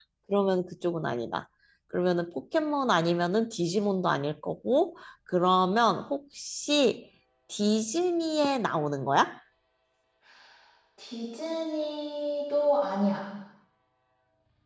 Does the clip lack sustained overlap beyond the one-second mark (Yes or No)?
Yes